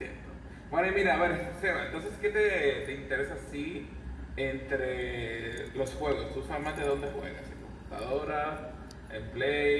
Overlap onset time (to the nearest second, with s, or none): none